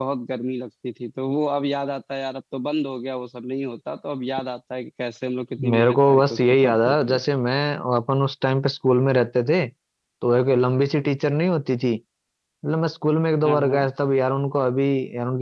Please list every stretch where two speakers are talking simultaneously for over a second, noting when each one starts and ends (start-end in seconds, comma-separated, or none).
5.6-7.2